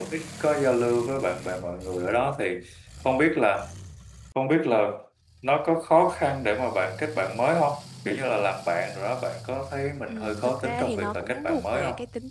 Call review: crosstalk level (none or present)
present